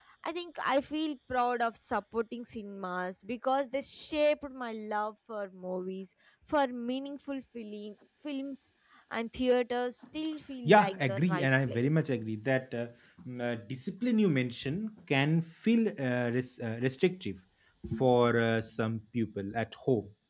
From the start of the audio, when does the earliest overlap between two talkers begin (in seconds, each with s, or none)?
10.6 s